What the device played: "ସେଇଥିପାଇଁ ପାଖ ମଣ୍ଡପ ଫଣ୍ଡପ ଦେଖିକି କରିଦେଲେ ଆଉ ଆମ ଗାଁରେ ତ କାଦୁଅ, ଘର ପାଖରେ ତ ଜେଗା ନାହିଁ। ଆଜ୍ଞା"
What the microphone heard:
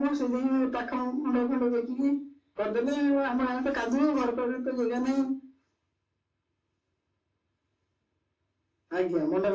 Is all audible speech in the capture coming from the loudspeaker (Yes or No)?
Yes